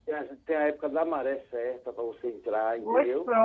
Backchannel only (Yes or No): No